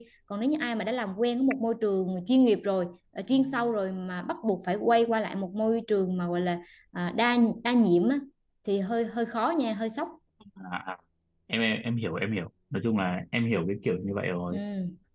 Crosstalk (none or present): none